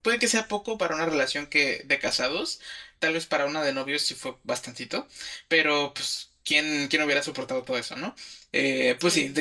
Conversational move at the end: listening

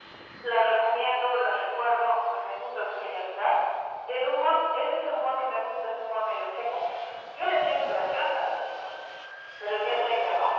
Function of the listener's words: listening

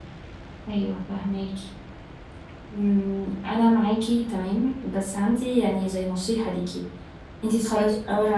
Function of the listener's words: listening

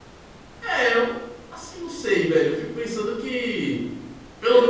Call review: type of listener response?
taking over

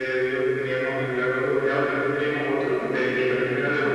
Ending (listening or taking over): listening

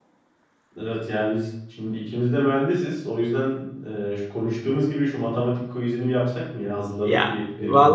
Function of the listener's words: taking over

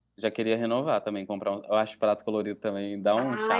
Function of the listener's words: taking over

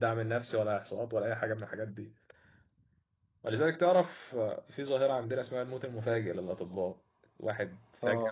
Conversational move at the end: listening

